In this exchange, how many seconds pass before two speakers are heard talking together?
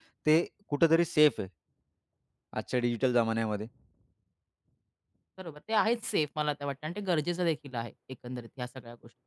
none

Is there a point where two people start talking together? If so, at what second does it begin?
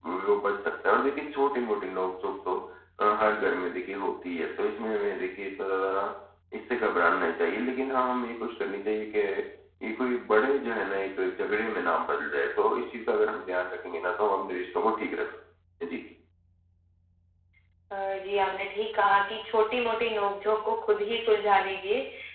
none

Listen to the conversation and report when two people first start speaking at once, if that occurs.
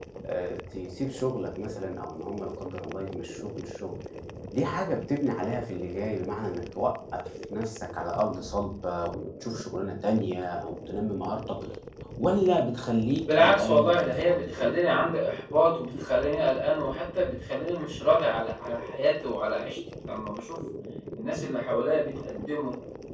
13.3 s

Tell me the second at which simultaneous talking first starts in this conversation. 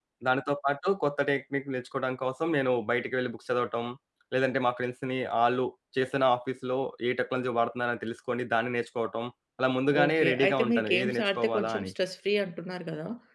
9.9 s

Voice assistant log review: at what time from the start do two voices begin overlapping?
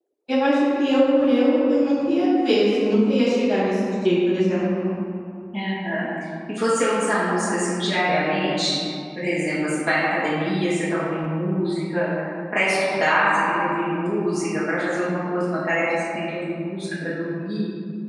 none

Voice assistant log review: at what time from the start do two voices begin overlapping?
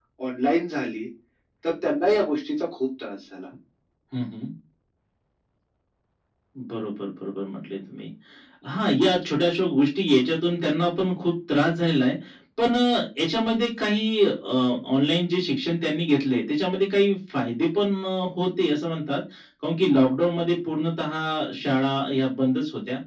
none

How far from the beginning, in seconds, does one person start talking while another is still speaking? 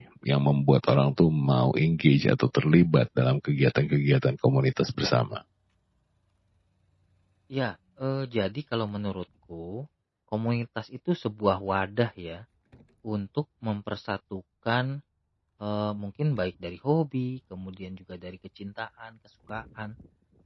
none

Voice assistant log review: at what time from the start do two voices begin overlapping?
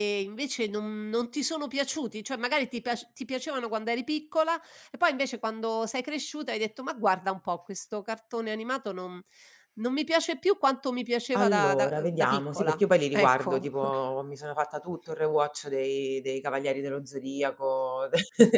11.3 s

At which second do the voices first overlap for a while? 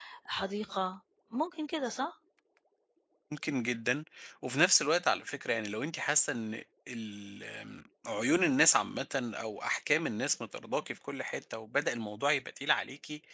none

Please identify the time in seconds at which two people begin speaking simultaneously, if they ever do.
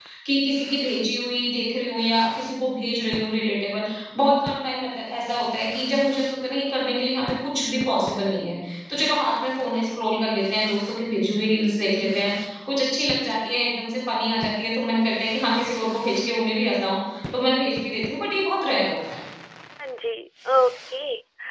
none

